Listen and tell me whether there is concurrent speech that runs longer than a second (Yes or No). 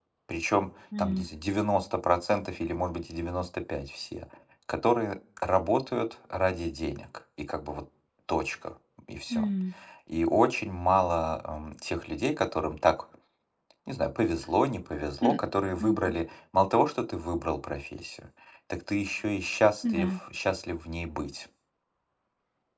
No